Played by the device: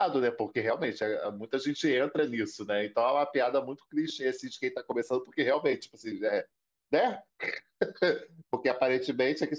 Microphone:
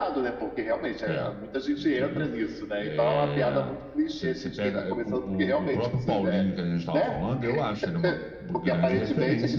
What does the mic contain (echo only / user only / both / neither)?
both